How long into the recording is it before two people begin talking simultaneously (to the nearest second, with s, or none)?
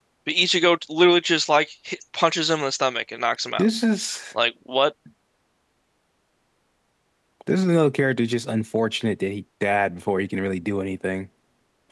none